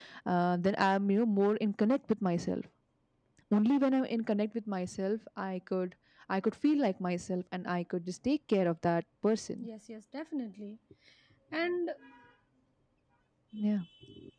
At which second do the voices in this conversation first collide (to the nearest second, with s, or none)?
none